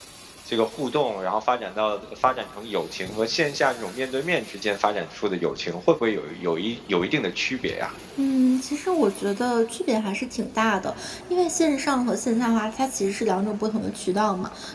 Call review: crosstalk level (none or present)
none